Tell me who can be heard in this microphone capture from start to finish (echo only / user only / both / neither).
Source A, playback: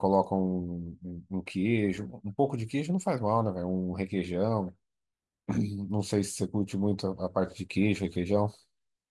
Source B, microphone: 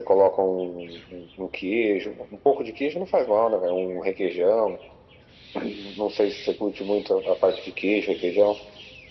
echo only